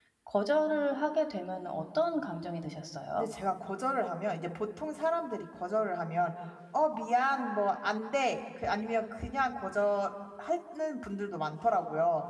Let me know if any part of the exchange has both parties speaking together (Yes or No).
No